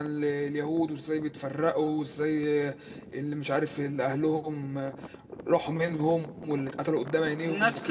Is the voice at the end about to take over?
Yes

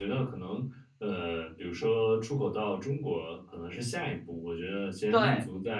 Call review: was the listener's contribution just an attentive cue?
Yes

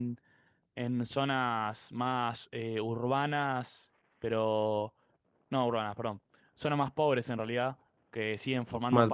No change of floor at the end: Yes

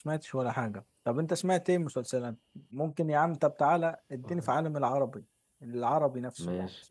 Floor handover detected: Yes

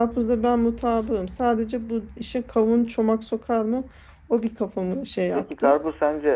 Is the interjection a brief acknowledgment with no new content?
No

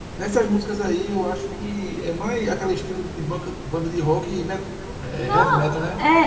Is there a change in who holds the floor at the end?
Yes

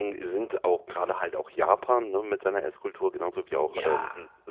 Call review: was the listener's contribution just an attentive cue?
Yes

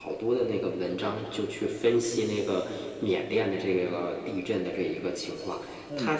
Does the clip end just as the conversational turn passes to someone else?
No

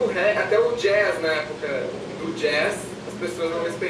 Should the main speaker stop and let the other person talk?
No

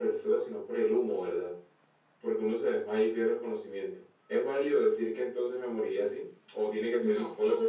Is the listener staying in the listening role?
No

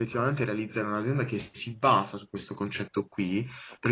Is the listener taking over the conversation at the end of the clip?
No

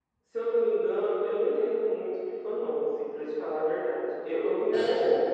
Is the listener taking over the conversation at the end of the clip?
No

